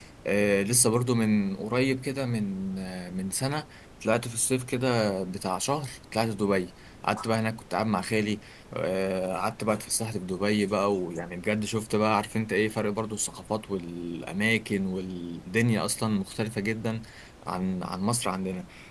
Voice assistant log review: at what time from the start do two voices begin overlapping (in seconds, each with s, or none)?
none